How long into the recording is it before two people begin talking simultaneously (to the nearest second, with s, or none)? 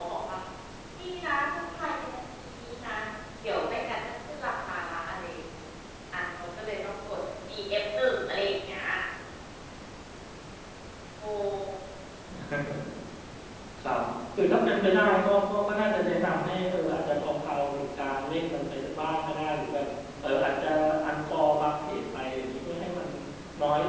none